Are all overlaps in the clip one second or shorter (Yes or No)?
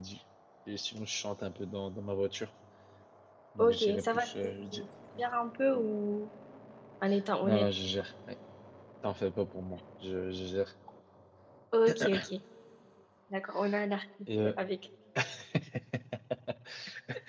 No